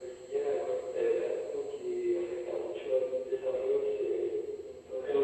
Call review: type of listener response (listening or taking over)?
taking over